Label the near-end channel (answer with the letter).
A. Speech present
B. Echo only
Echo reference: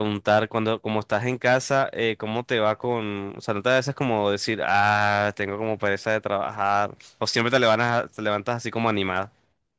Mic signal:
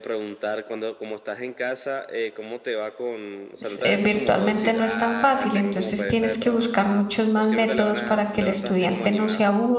A